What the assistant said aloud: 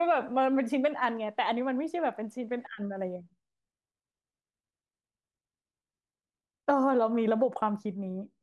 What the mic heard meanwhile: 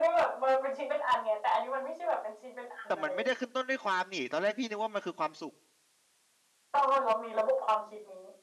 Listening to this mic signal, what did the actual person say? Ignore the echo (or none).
แต่มันไม่ได้ขึ้นต้นด้วยความนี่ตอนแรกพี่นึกว่ามันคือความสุข